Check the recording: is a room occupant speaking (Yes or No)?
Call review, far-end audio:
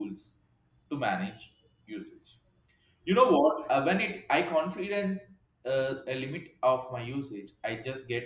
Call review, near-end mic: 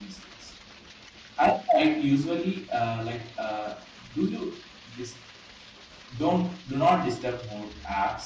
Yes